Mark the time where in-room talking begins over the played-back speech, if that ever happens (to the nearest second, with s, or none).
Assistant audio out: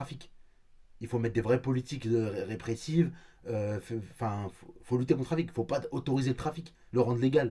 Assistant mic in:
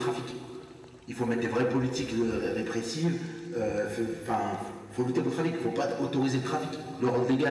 none